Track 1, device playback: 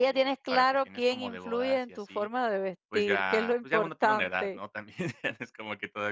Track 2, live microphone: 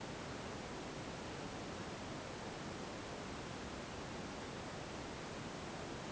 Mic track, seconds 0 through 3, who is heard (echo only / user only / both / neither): neither